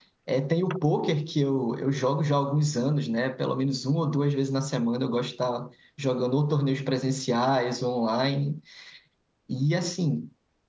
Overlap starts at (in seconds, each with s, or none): none